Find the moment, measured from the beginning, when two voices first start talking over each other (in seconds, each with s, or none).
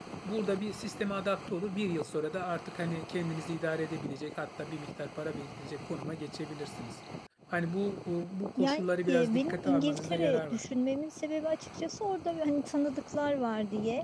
8.6 s